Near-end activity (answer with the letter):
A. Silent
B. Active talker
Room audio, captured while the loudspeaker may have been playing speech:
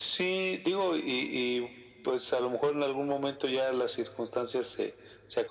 A